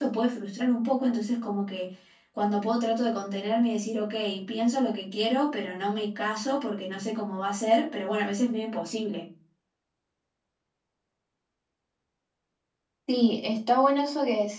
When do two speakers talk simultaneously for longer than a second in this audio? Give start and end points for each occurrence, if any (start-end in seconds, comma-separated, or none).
none